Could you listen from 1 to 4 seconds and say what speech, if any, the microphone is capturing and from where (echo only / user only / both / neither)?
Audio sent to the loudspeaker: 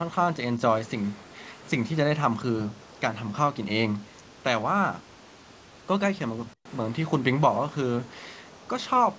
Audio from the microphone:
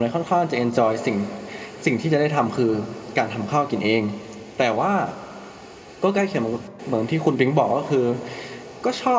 echo only